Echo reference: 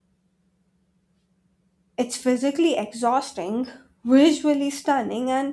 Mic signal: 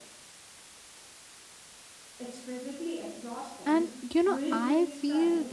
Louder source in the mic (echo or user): user